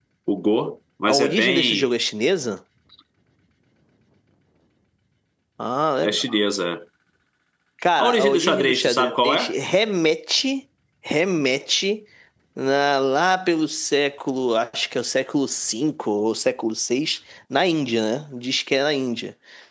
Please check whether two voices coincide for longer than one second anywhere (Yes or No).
Yes